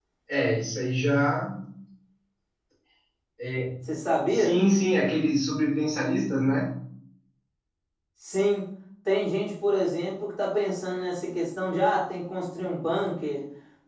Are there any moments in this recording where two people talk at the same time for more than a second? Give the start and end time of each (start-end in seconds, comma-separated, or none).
none